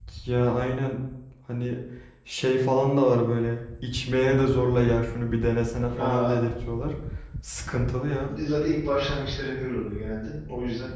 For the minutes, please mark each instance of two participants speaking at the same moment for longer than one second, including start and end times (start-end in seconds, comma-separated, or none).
none